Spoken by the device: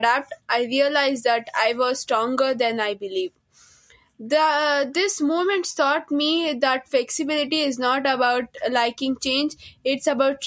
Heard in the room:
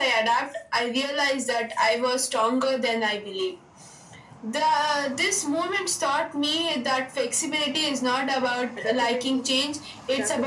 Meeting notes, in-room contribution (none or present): present